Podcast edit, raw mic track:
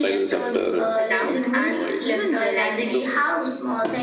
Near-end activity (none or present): present